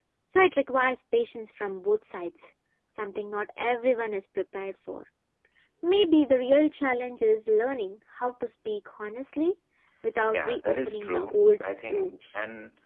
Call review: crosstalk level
present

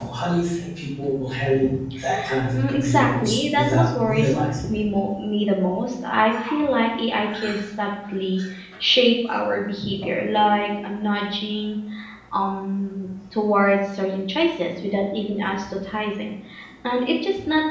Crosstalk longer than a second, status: present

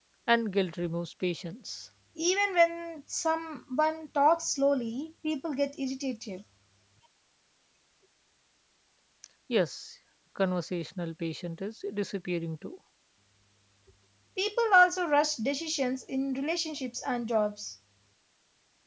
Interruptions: none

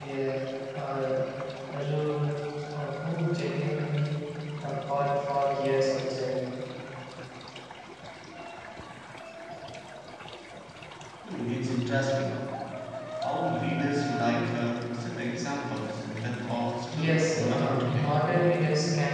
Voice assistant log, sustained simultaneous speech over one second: present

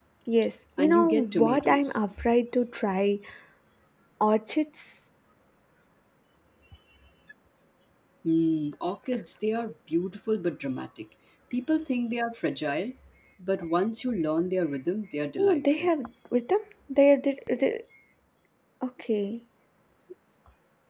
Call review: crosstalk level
present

